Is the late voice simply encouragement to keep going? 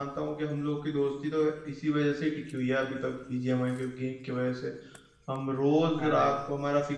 Yes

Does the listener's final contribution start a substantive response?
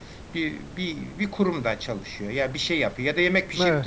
No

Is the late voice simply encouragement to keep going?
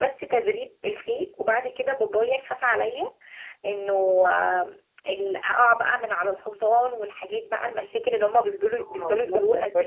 No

